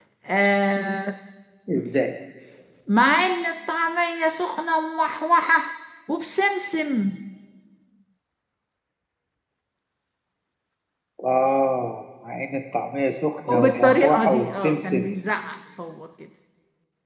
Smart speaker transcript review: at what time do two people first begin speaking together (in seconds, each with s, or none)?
13.5 s